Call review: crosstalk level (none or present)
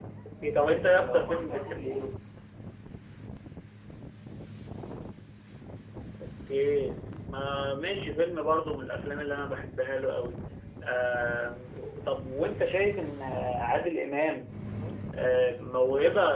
present